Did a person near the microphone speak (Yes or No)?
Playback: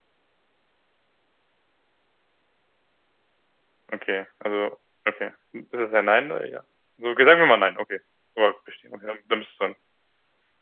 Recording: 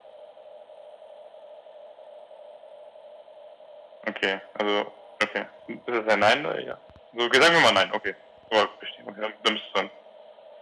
No